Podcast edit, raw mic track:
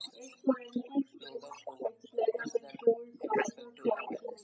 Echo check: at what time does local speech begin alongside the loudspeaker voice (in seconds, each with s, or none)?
none